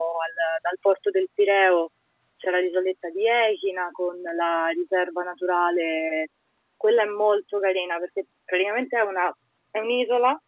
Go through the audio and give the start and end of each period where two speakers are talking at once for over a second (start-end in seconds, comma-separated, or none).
none